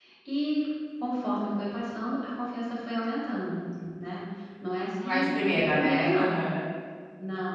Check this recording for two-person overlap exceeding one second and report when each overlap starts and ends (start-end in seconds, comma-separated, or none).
5.0-6.2